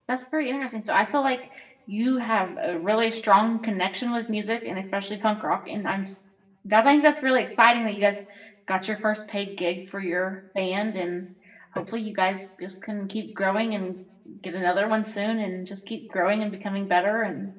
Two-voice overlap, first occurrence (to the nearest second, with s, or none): none